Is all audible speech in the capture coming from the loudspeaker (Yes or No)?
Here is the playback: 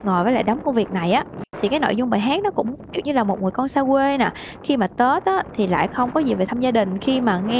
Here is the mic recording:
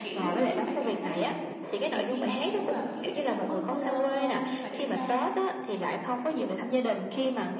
No